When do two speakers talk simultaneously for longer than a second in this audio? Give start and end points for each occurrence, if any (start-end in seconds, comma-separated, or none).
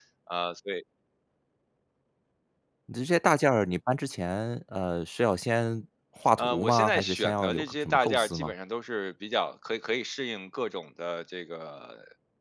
6.4-8.5